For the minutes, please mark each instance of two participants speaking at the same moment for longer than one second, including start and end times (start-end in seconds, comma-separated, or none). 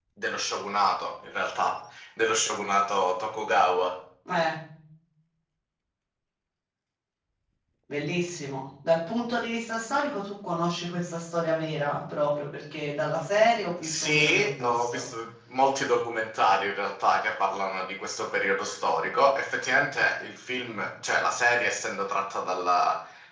13.8-15.1